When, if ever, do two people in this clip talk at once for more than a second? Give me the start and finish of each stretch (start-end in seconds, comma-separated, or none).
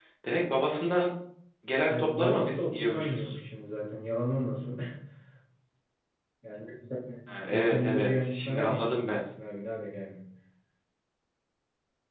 1.9-3.4, 7.5-9.2